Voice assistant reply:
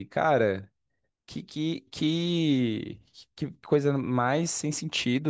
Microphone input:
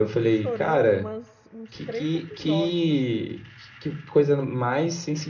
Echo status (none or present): present